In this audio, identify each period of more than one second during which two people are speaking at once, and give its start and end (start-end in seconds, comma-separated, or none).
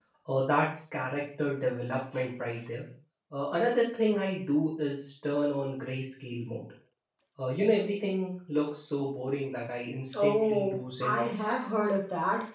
10.2-11.5